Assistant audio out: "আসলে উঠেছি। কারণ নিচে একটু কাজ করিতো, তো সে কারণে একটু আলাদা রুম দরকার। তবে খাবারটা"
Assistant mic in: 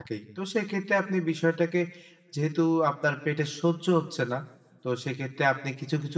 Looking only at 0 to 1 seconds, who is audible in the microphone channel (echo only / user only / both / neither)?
user only